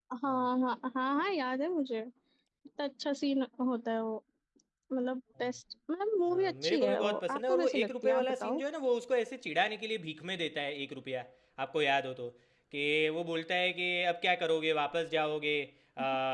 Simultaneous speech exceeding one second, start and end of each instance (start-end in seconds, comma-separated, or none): 6.3-8.6